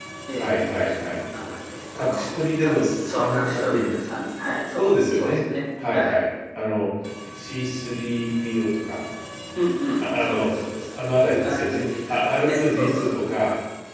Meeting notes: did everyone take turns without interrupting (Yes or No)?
No